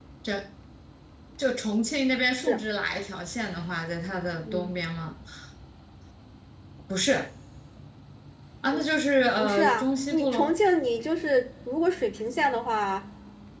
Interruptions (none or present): present